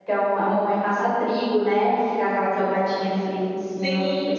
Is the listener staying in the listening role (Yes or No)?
No